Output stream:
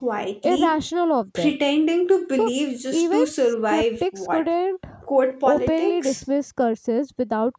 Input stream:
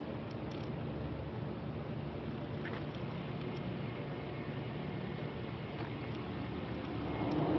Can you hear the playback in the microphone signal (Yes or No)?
No